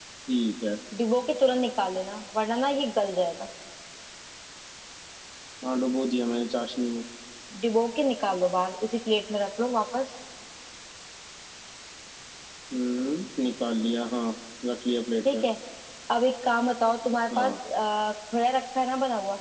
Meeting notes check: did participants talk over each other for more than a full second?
No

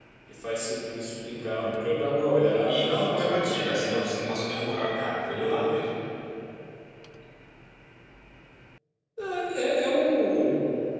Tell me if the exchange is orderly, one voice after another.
No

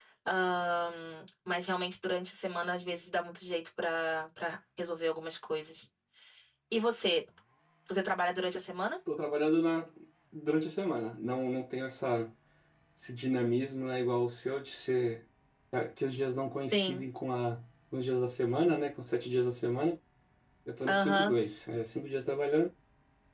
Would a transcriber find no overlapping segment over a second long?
Yes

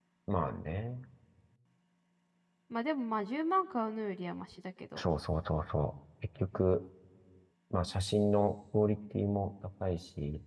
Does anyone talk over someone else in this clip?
No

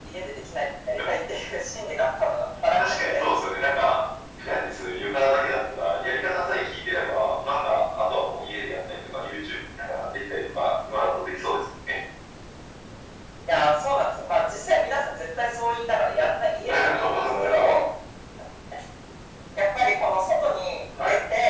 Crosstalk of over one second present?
Yes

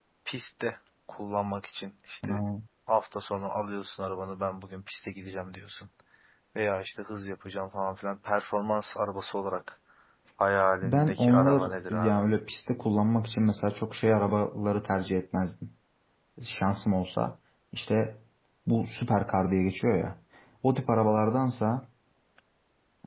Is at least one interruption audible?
Yes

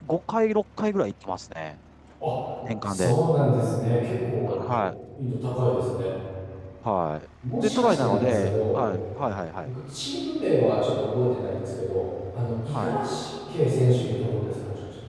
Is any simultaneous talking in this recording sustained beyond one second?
Yes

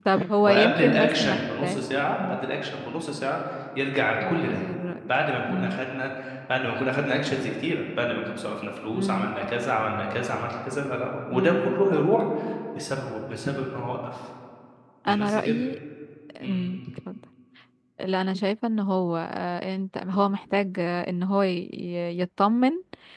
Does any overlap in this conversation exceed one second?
Yes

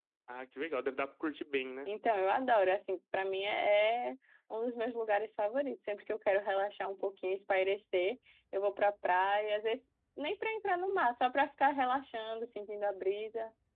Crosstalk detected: No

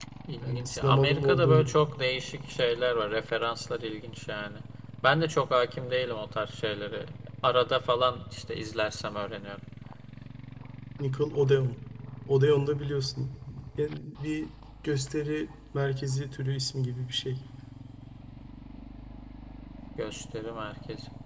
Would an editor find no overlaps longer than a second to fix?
No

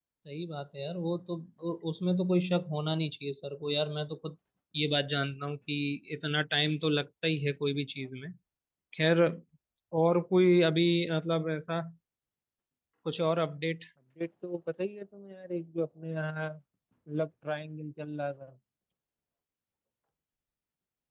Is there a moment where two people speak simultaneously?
No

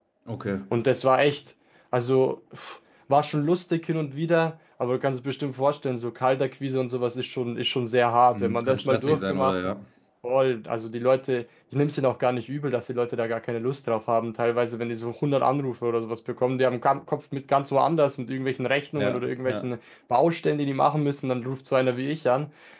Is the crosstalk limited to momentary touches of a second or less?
No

